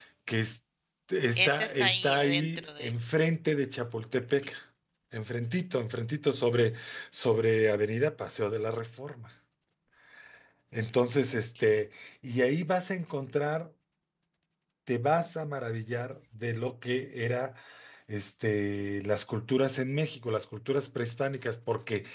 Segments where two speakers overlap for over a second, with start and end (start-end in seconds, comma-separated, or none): 1.4-2.9